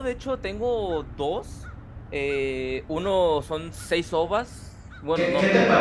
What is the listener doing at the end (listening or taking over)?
taking over